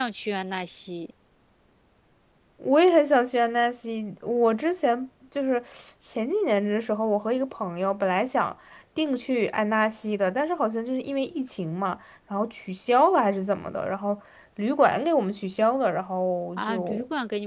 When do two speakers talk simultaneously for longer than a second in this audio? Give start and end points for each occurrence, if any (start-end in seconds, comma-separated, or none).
none